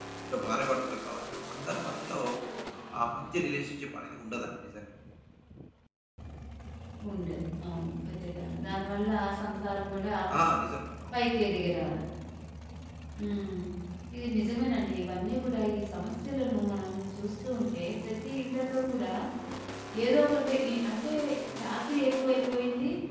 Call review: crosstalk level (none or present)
none